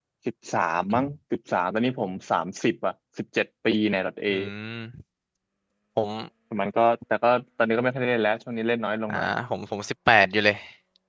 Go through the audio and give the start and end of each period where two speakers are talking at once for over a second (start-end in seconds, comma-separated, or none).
none